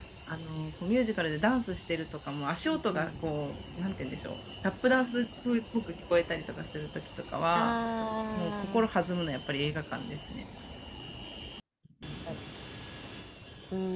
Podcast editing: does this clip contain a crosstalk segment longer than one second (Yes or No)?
No